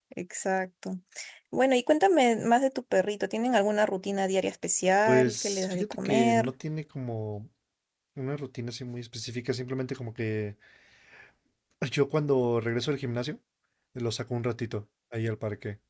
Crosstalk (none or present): present